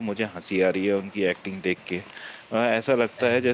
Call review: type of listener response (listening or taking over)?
listening